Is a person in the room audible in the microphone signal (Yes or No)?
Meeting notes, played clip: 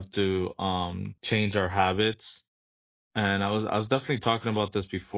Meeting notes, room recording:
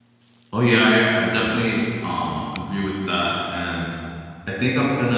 Yes